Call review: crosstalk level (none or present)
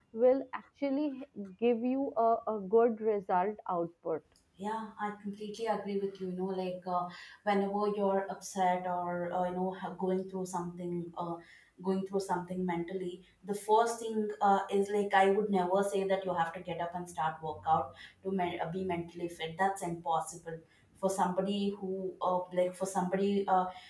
none